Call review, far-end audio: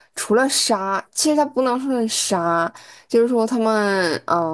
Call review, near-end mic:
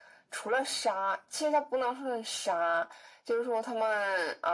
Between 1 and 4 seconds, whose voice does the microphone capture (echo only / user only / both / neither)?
echo only